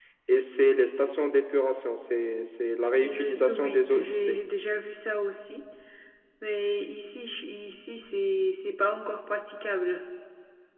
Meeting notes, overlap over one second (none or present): present